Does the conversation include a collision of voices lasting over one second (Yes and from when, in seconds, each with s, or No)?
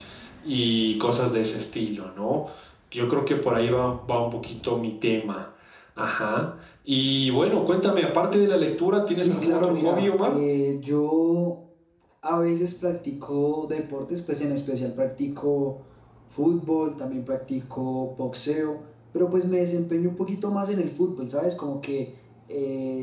Yes, from 9.1 s